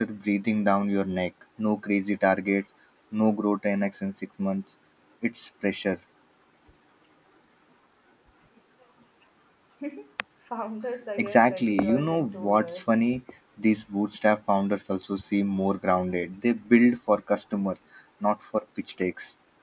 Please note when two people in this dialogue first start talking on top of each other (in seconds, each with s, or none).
11.2 s